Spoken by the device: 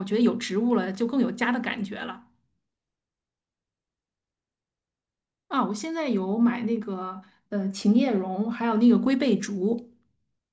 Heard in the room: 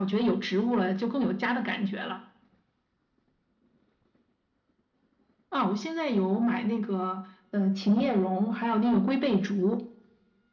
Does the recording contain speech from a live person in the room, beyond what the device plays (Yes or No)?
No